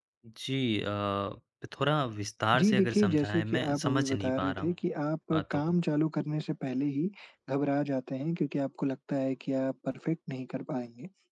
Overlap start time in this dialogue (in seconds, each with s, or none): 2.6 s